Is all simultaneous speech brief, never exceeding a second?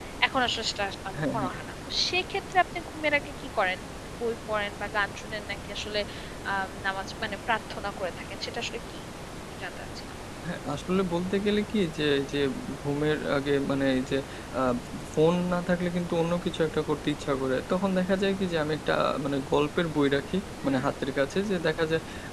Yes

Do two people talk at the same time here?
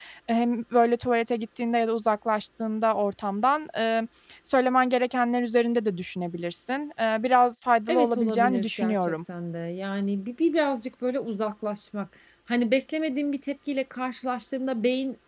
Yes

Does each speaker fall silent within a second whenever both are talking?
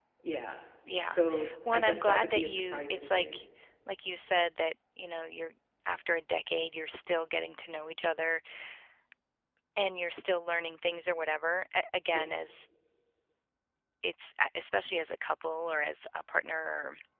No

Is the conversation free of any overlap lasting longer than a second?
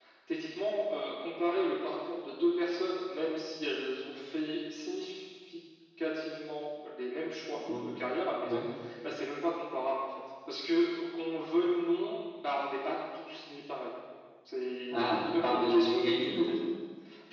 No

